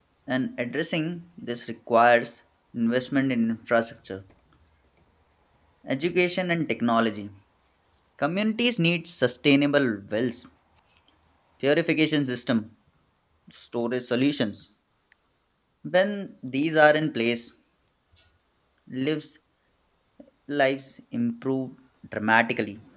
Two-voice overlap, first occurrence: none

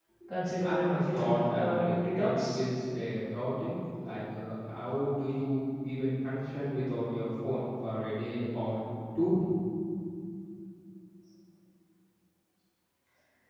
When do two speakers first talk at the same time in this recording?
0.6 s

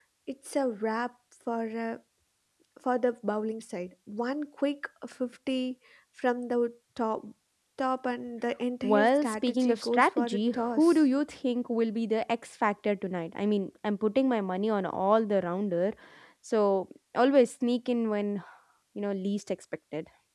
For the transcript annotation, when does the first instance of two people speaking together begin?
8.8 s

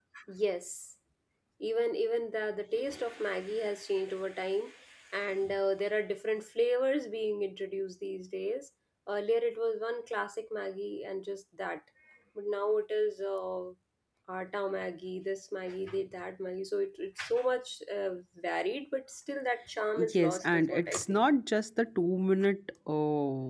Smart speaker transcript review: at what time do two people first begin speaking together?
20.0 s

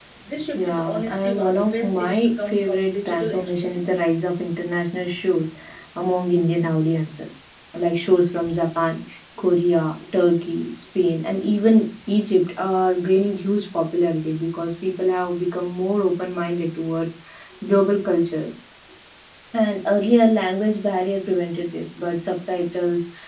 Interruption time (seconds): 0.6 s

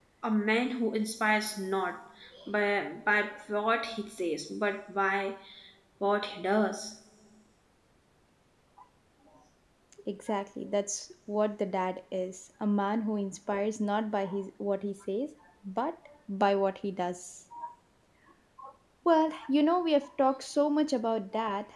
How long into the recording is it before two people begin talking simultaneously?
none

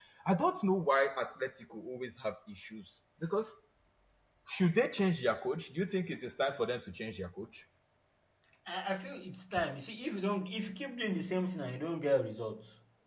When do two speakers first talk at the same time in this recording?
none

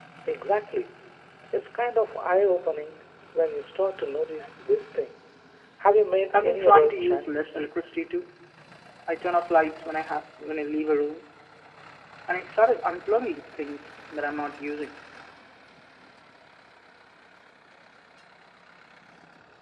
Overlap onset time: 6.3 s

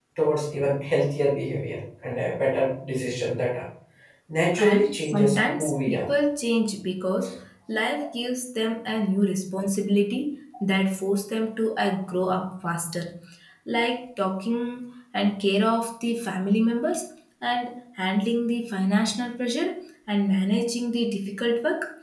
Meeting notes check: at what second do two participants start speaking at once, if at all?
4.6 s

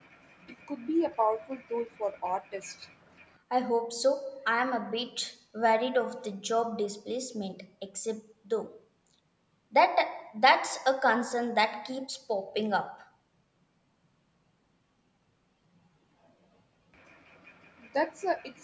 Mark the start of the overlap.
none

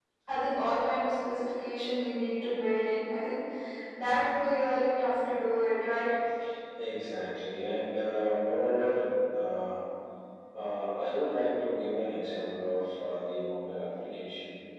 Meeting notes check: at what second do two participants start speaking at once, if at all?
none

